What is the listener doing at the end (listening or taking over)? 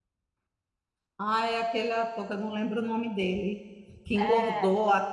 listening